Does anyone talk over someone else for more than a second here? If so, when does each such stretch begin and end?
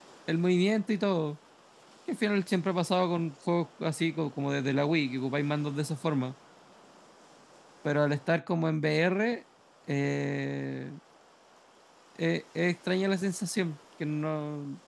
none

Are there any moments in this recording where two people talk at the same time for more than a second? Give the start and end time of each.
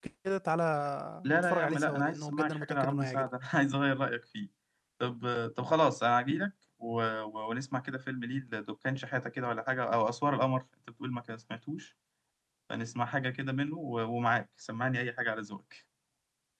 1.2-3.3

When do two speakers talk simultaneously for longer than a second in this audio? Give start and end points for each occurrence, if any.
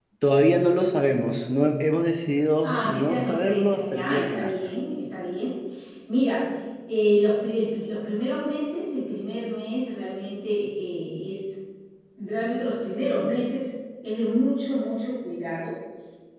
2.6-4.5

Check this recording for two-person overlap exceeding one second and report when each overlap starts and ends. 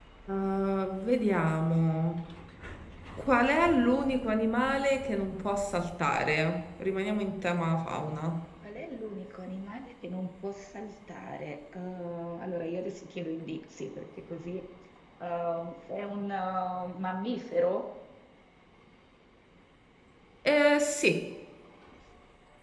none

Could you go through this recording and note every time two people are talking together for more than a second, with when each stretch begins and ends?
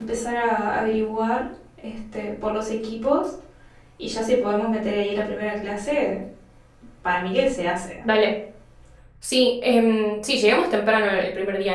none

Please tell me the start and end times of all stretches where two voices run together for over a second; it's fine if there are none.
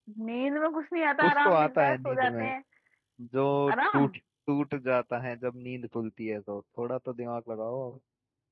1.2-2.5

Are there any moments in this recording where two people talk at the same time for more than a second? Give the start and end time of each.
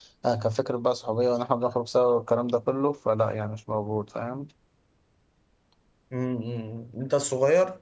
none

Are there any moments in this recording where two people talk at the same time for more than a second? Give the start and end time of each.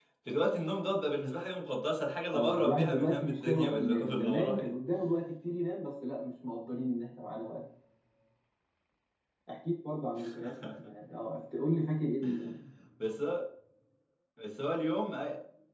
2.3-4.7

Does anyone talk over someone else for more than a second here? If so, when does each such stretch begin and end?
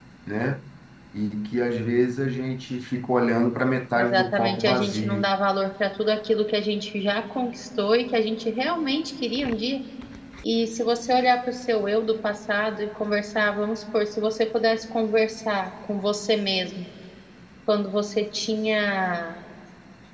3.9-5.3

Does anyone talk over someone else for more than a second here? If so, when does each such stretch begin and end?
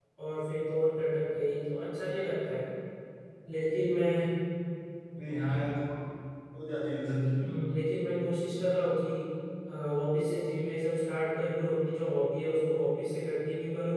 none

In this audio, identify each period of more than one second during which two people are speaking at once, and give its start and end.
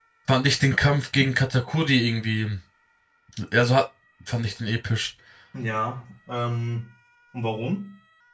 none

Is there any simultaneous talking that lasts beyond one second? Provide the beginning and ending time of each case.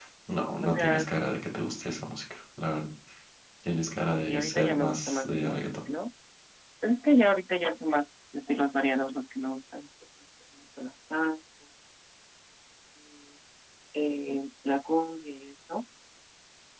4.3-5.7

